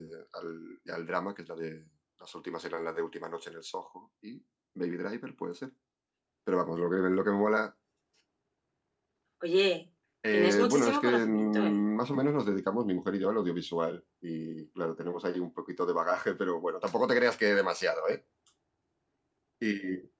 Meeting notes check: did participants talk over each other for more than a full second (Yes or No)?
Yes